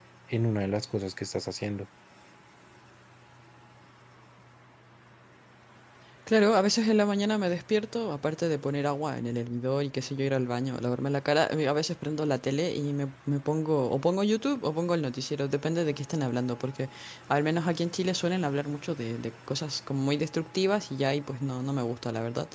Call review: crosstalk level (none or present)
none